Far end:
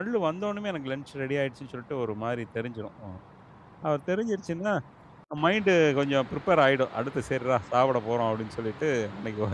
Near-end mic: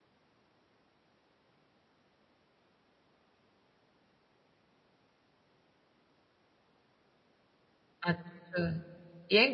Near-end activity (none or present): present